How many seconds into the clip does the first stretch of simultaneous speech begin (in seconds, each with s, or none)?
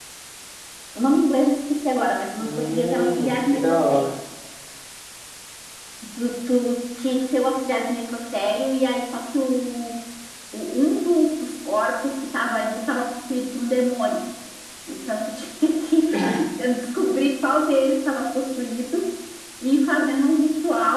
2.4 s